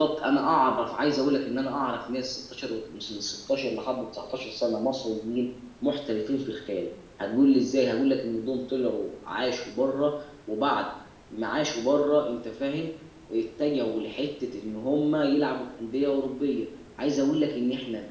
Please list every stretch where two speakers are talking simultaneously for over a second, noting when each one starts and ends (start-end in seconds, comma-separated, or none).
none